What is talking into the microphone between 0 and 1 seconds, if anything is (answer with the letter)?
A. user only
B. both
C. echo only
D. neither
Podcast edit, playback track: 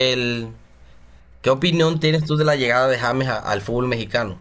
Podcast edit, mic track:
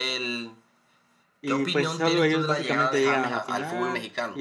C